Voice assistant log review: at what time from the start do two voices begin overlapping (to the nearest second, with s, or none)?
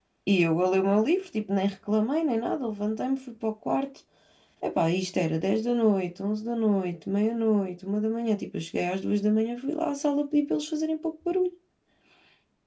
none